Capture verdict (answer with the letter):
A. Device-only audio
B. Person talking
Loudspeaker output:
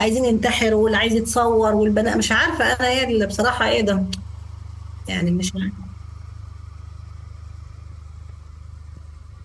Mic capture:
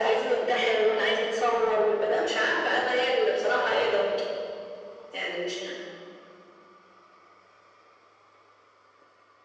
A